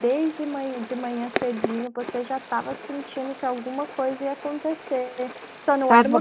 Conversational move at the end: listening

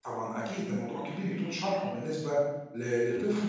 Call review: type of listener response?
listening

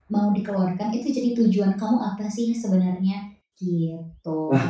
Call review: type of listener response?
taking over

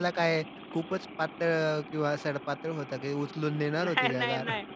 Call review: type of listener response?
taking over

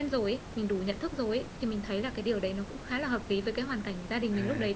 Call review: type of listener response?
taking over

